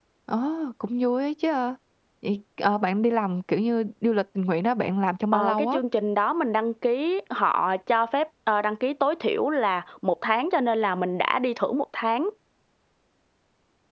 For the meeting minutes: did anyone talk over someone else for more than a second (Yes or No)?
No